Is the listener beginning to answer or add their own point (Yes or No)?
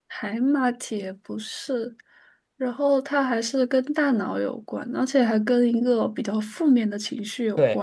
Yes